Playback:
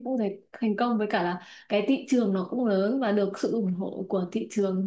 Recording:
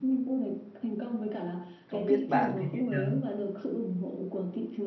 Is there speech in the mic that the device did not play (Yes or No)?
Yes